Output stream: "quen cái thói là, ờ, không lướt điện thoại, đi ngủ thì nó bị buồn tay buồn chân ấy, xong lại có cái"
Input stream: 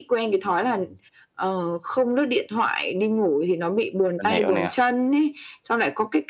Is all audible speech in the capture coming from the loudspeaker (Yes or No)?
No